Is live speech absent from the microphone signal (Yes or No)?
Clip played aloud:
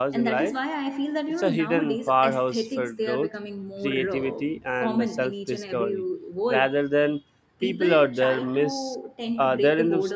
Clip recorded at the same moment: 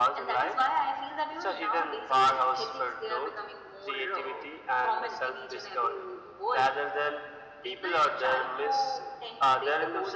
Yes